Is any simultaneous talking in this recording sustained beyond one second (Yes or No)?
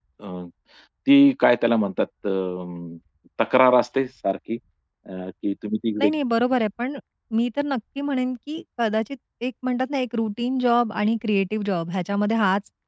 No